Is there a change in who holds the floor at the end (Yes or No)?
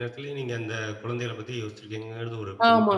Yes